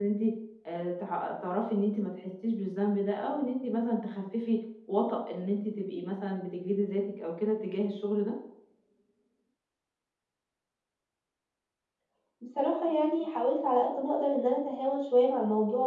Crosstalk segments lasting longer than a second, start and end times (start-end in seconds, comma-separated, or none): none